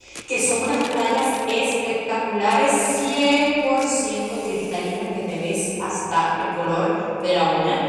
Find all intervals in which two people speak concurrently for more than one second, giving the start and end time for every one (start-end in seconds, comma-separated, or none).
none